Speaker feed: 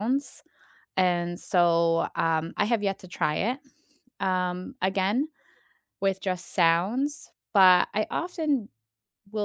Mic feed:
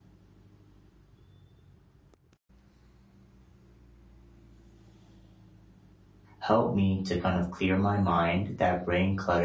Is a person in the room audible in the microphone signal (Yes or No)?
Yes